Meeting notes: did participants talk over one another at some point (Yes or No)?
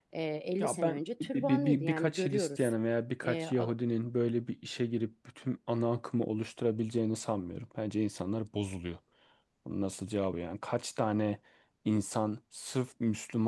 Yes